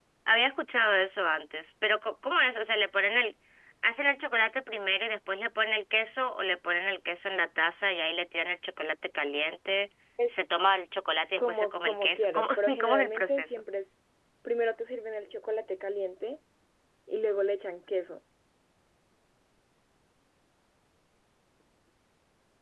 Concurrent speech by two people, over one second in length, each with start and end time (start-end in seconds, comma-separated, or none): 11.4-13.6